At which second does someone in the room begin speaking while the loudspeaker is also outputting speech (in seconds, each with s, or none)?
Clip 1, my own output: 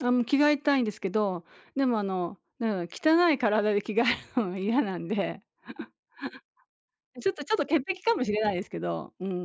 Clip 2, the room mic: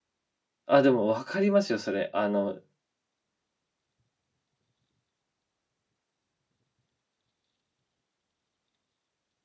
0.7 s